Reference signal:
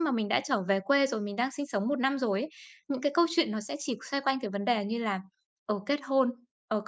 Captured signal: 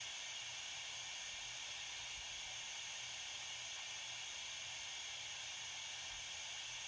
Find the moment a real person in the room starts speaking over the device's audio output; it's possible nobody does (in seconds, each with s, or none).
none